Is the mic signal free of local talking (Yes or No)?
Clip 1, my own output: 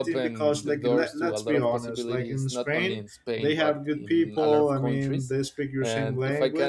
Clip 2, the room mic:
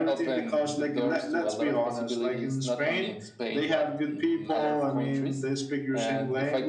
Yes